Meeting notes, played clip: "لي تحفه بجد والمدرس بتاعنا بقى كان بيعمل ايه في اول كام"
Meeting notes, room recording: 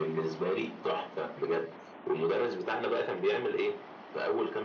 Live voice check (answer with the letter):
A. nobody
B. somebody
A